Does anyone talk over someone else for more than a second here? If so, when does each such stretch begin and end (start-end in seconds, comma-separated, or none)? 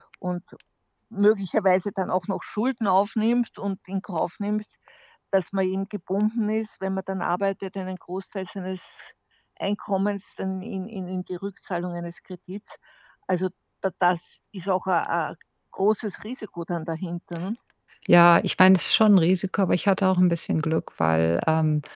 none